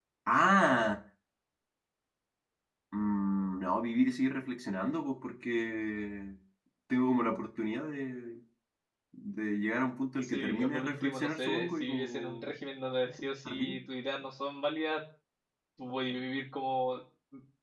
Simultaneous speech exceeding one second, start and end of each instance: 10.2-12.5

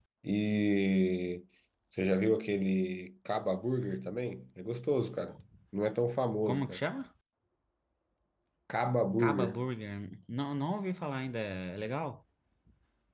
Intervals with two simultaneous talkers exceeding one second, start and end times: none

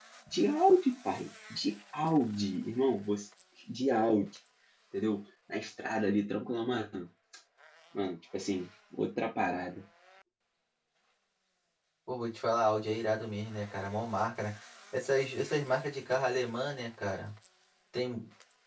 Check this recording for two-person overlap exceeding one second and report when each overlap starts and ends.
none

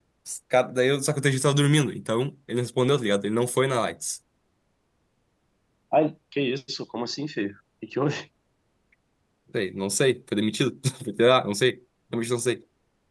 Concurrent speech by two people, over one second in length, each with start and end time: none

